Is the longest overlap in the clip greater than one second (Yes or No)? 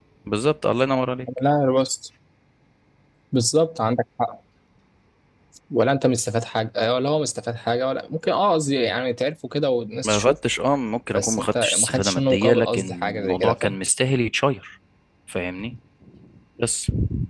Yes